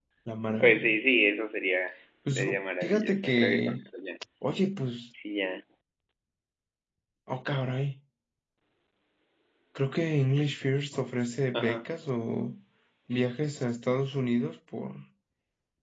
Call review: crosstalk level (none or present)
present